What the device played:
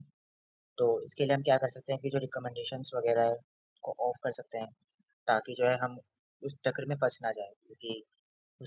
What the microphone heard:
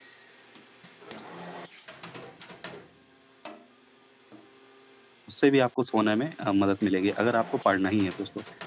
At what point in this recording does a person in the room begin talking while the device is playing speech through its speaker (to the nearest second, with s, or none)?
5 s